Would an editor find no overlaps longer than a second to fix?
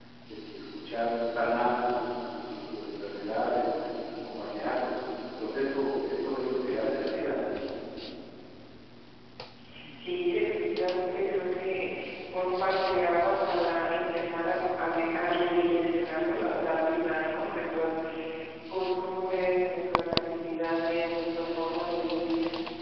Yes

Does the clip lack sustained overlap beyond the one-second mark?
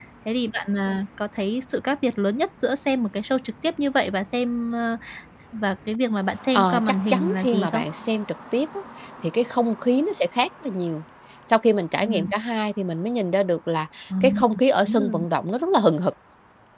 No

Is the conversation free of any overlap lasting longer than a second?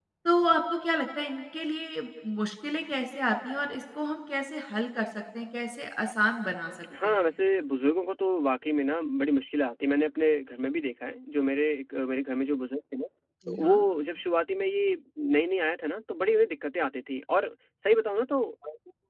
Yes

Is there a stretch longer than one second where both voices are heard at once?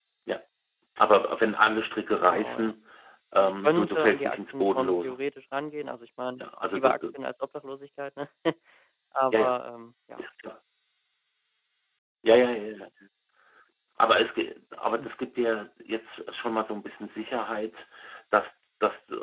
Yes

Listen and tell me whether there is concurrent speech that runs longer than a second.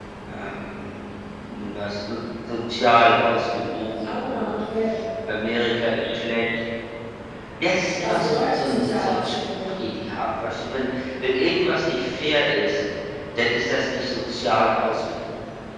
Yes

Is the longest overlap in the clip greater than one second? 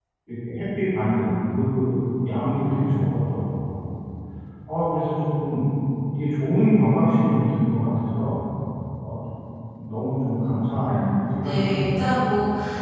Yes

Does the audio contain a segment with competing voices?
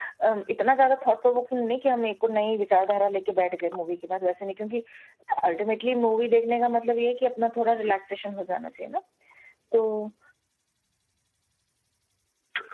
No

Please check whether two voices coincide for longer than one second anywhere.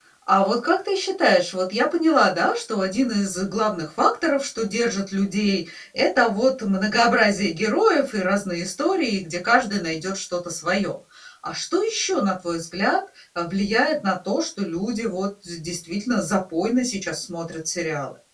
No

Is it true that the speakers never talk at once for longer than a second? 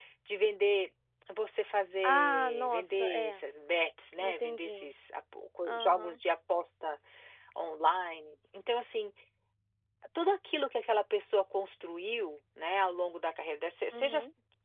No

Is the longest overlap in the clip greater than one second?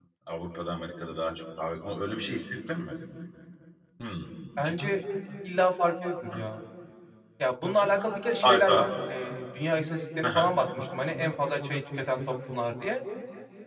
No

